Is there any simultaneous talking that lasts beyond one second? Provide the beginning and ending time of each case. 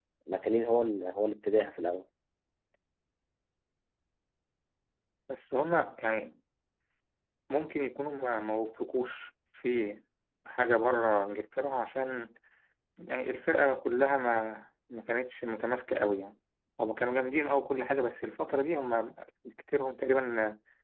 none

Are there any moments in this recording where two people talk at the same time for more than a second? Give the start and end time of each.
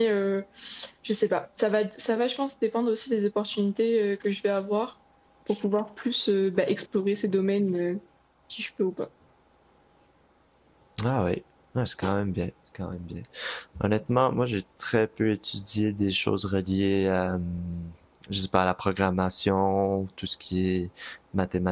none

